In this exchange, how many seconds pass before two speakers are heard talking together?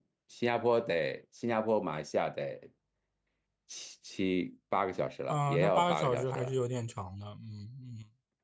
5.3 s

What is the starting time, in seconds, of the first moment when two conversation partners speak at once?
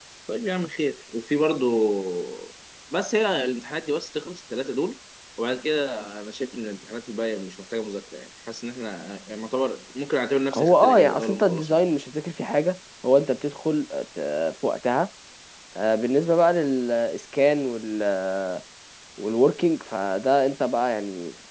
10.5 s

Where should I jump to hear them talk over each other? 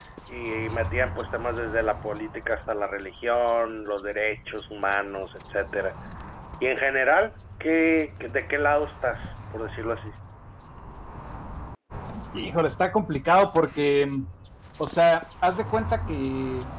none

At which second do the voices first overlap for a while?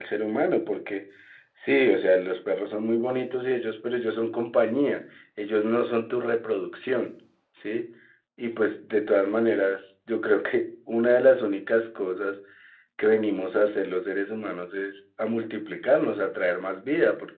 none

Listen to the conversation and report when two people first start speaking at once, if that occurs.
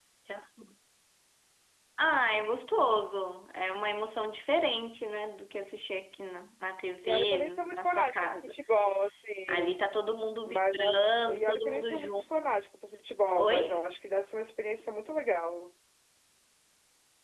7.0 s

